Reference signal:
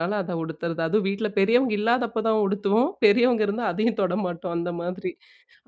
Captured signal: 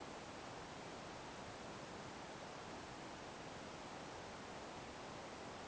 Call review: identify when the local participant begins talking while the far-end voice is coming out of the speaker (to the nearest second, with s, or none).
none